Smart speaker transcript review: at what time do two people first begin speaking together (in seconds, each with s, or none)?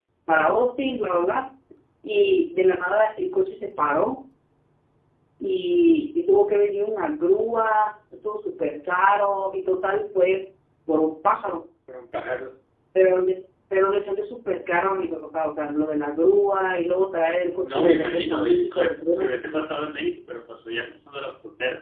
17.5 s